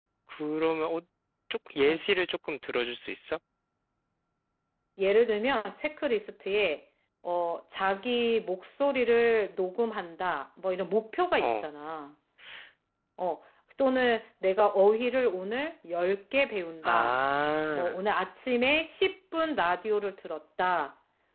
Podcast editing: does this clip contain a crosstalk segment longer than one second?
No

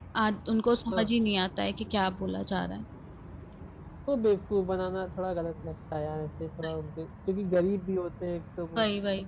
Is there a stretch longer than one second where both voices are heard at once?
No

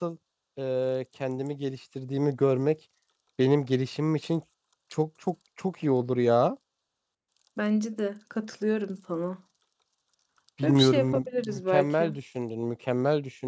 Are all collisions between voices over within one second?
No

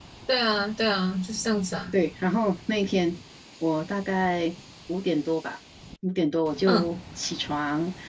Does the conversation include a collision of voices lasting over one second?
No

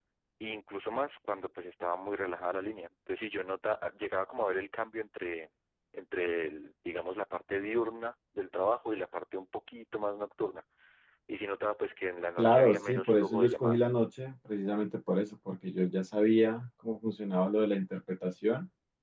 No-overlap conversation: No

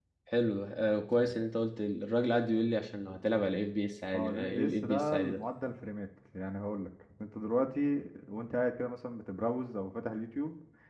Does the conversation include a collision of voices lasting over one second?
Yes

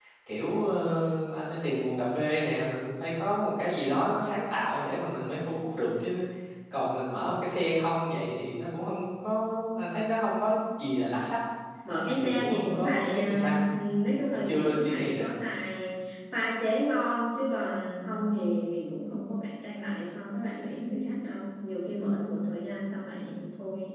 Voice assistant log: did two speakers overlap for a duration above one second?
Yes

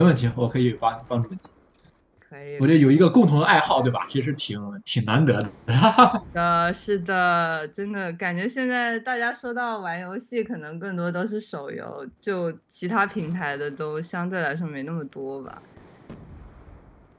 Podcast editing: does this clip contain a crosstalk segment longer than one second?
No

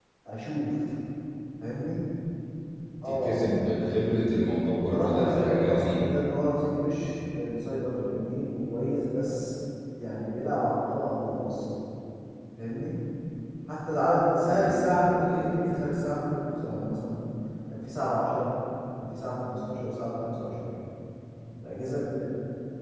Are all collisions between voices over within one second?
No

